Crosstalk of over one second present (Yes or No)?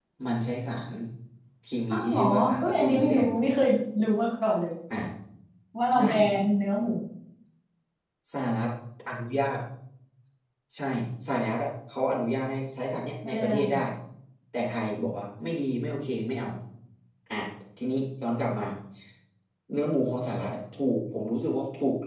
Yes